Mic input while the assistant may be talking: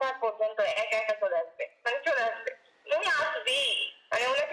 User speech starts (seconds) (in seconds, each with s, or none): none